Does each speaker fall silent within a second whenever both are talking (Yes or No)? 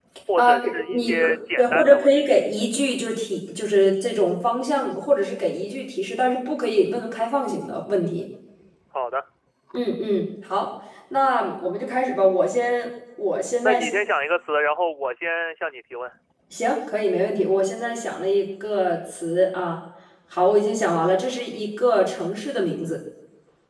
No